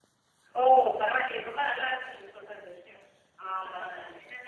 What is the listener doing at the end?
listening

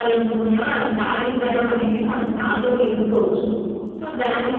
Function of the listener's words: taking over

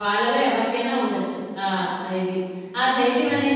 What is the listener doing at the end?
listening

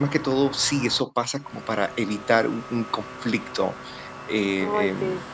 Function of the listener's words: listening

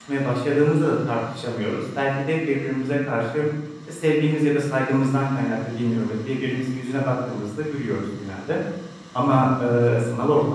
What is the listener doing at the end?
listening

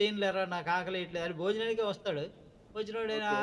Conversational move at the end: listening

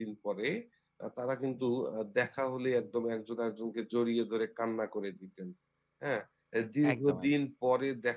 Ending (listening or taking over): listening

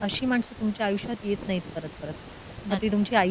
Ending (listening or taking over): listening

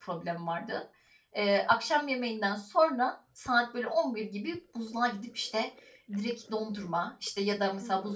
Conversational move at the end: listening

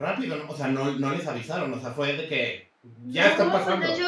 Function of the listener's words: taking over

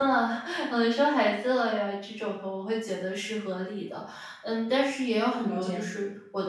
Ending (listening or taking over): listening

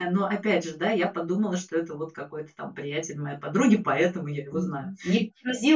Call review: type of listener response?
taking over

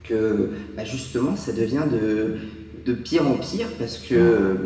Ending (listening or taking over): listening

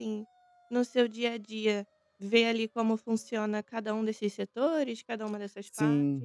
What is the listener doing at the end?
taking over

